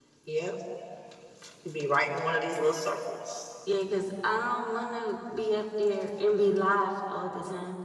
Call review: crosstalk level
none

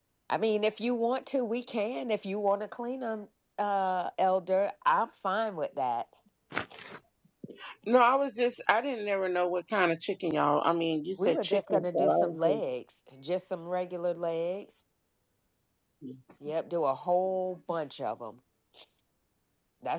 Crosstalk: present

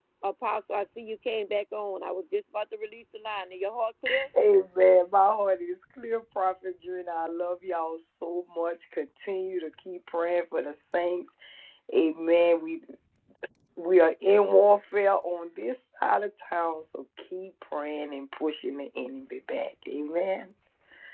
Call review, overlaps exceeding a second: none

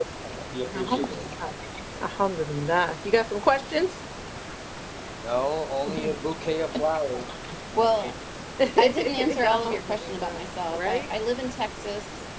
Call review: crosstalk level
present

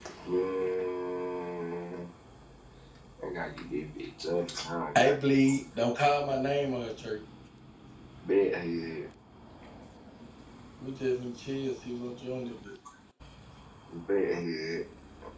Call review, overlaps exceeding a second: none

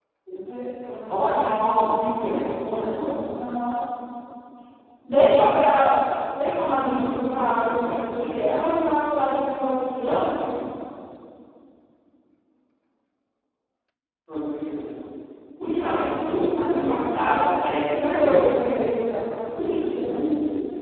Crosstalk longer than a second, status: present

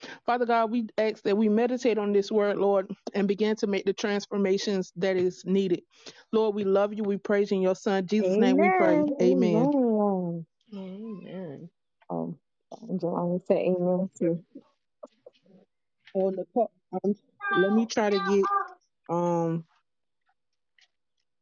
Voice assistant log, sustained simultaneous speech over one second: present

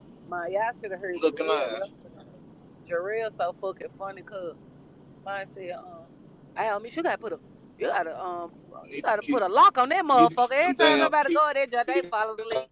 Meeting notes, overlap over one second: present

